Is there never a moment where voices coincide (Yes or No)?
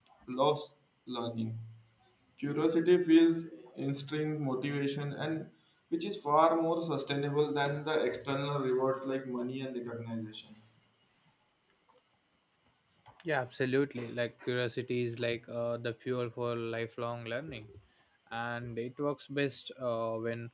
Yes